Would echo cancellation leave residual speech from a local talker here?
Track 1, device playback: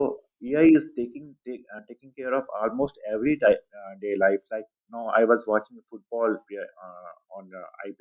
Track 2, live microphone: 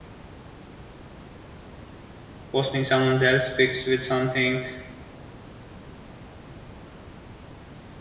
Yes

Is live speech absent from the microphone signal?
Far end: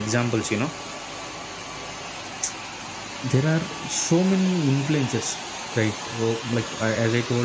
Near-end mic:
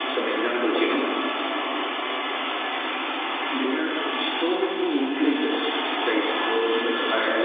Yes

